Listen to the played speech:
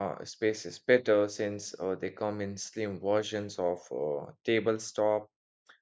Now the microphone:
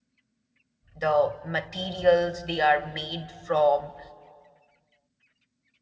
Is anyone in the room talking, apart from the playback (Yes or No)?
Yes